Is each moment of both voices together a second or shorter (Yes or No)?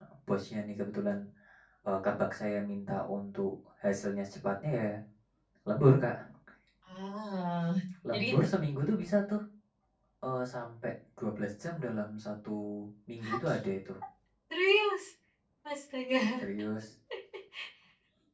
Yes